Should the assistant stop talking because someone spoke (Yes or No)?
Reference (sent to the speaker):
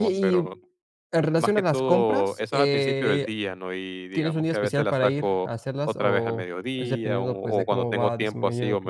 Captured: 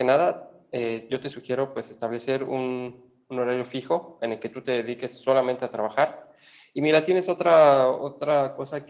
Yes